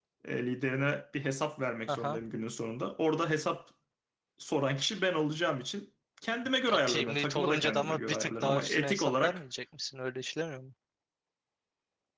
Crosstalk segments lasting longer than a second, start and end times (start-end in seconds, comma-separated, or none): 6.7-9.4